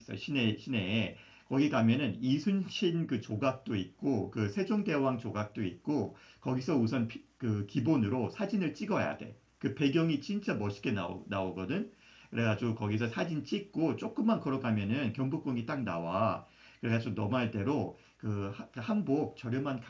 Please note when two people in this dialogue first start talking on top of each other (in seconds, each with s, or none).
none